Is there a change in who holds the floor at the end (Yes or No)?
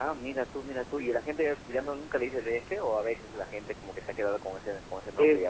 Yes